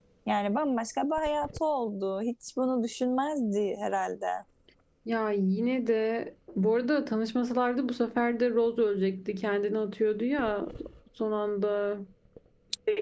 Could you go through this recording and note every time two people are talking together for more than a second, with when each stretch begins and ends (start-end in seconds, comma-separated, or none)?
none